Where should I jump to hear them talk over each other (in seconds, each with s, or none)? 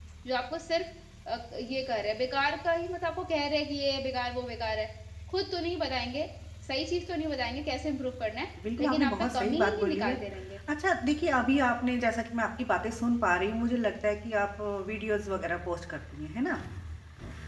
8.6 s